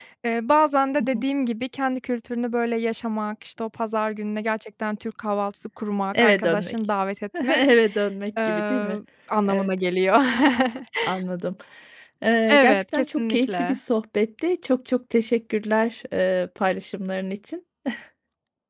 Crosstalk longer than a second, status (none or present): present